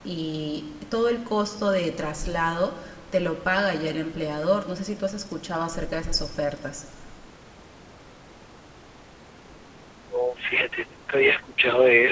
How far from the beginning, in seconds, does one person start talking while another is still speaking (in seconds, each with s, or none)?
none